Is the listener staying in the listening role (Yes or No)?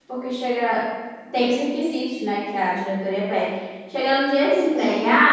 Yes